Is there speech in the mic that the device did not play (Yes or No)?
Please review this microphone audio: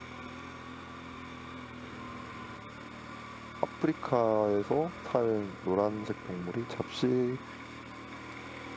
Yes